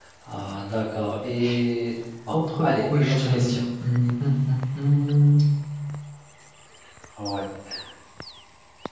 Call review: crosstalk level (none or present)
present